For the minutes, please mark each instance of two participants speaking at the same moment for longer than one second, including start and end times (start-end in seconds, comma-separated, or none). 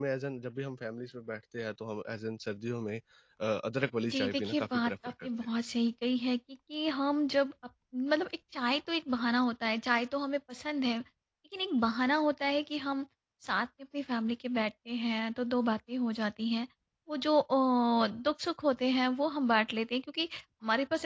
4.1-5.5